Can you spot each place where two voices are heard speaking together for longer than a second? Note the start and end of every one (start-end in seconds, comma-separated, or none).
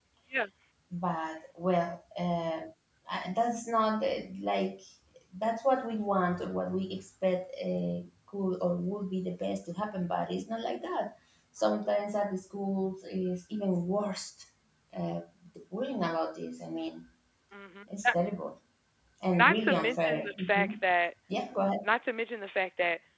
19.4-20.7